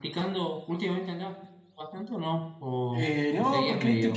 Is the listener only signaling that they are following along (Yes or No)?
No